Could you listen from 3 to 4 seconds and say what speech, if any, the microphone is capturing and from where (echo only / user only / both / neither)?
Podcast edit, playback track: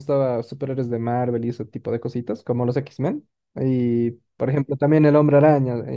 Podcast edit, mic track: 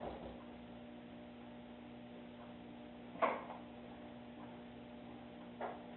neither